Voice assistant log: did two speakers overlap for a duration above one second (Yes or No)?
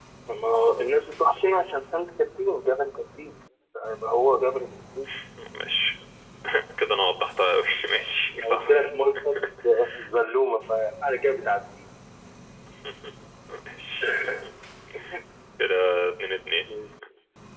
No